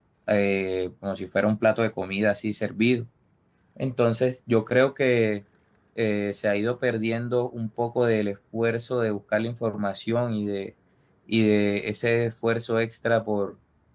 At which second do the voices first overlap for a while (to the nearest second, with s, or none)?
none